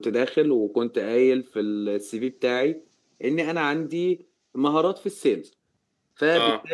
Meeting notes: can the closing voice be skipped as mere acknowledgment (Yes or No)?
Yes